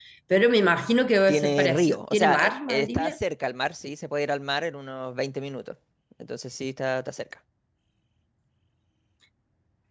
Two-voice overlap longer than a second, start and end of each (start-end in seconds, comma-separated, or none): 1.3-3.2